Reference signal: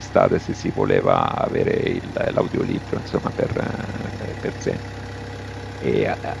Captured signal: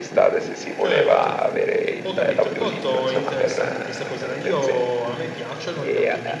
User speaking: Yes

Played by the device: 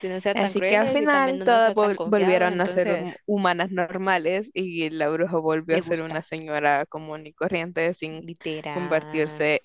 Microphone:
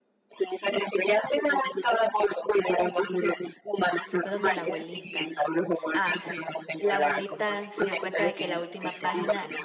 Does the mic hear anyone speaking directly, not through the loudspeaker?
Yes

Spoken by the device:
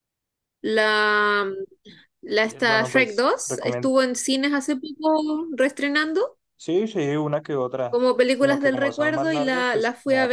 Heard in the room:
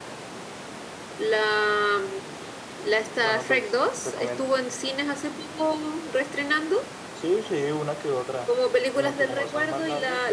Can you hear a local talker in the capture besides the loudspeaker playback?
No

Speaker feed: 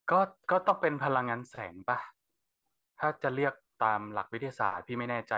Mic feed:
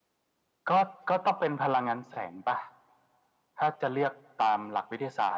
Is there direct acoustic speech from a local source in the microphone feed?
No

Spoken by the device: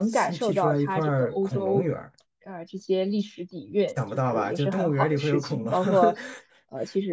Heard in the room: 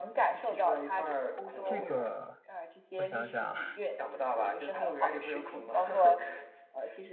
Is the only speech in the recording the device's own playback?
No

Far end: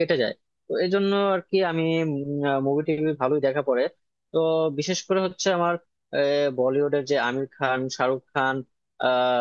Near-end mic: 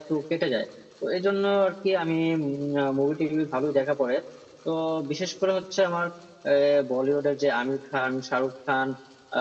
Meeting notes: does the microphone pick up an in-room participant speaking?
No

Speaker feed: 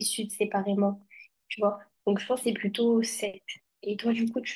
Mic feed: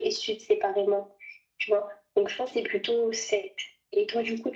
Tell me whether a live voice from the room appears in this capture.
No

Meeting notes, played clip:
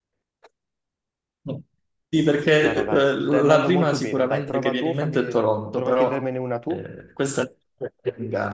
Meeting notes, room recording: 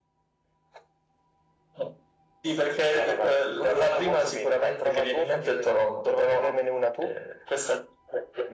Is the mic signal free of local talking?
Yes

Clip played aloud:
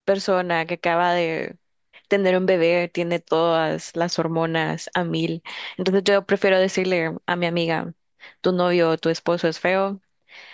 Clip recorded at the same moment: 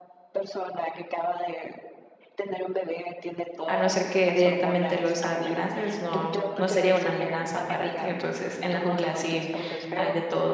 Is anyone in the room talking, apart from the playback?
Yes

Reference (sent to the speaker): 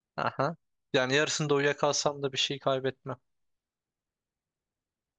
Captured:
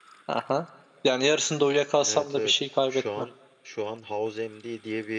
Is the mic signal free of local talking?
No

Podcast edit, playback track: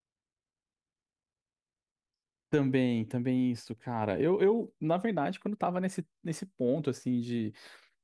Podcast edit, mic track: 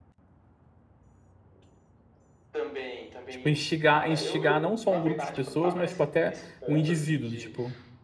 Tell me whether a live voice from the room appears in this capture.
Yes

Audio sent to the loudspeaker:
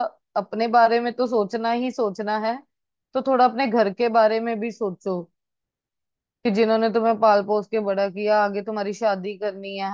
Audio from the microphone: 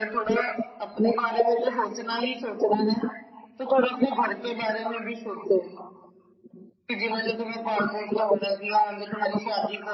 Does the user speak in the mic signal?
No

